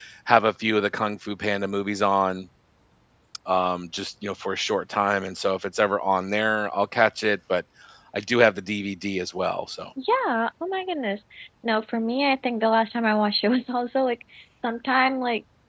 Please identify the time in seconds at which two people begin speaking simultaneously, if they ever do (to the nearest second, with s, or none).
none